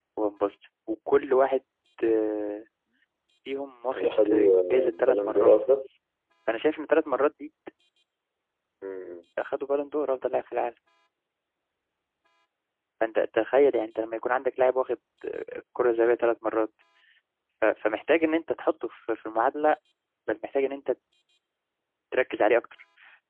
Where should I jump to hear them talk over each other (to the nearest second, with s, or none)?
4 s